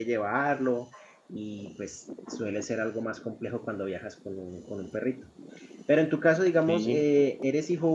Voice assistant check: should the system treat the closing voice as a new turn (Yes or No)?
No